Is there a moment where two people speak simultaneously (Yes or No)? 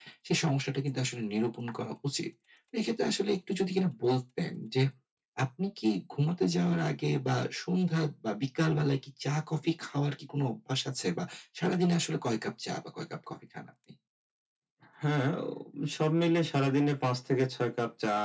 No